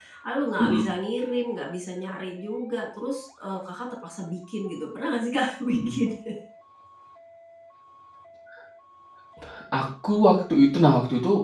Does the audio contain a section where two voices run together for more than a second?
No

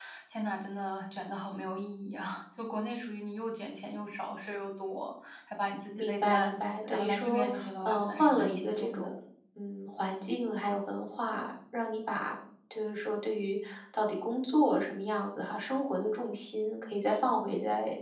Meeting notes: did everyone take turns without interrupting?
No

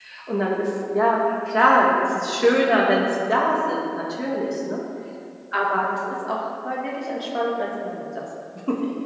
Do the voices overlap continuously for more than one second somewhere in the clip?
No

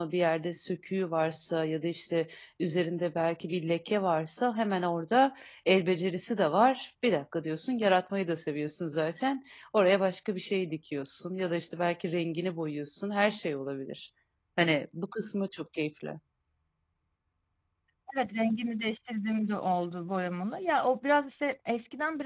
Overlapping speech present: No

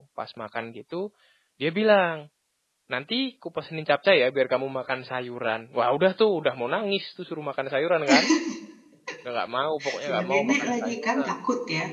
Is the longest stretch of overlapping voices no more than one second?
No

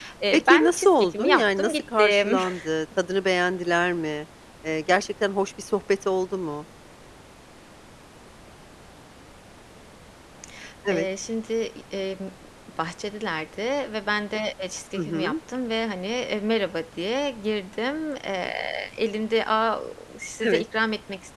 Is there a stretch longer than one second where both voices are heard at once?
Yes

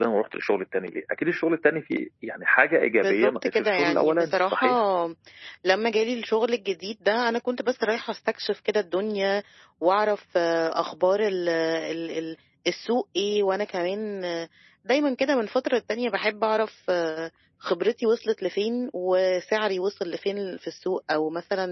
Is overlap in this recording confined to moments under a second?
No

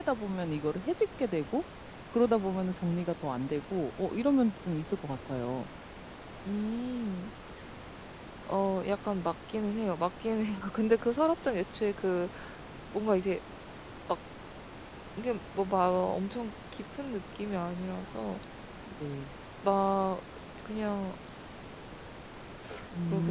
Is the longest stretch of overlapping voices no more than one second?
Yes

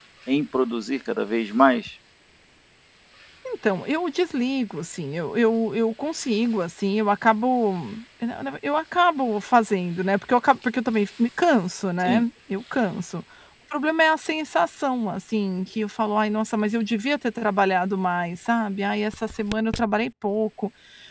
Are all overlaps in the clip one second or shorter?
Yes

